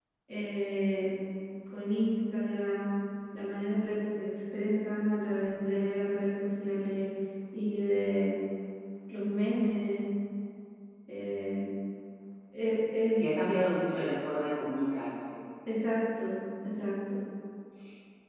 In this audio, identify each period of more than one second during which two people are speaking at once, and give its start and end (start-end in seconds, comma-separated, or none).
none